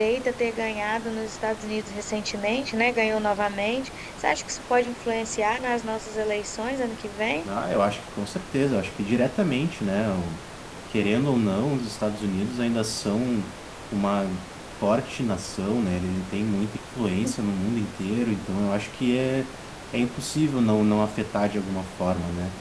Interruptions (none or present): none